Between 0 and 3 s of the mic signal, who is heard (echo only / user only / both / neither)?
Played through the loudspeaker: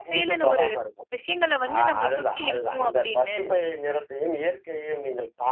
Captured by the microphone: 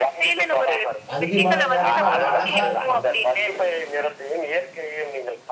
both